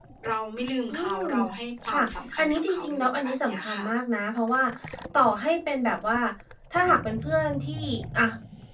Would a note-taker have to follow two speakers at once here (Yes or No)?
Yes